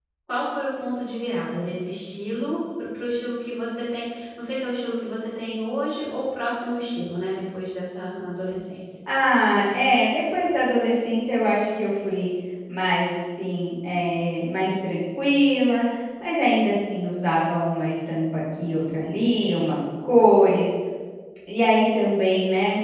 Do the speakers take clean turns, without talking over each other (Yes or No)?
Yes